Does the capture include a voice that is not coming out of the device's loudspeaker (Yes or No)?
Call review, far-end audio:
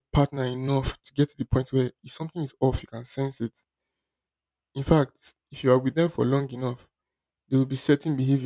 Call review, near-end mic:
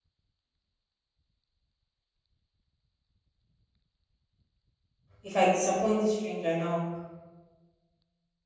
Yes